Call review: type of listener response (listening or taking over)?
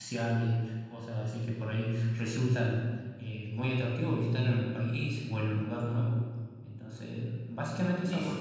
taking over